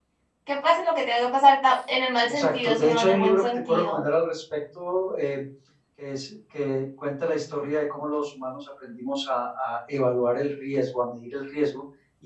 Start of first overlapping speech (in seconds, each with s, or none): 2.2 s